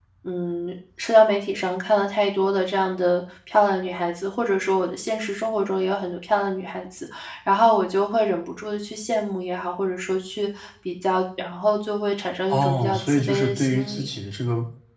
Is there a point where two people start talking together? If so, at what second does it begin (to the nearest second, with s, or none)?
13 s